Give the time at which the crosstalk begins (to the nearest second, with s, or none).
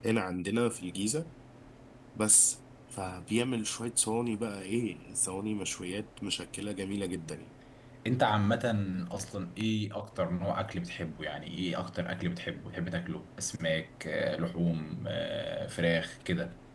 none